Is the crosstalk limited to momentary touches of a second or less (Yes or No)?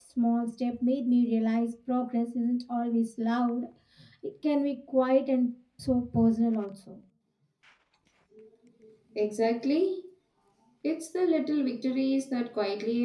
Yes